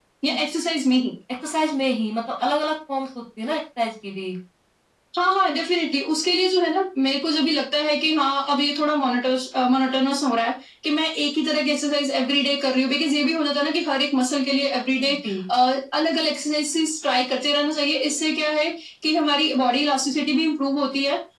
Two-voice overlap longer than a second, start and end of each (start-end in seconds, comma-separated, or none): none